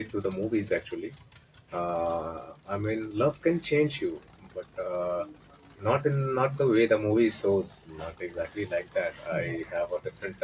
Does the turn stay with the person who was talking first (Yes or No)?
Yes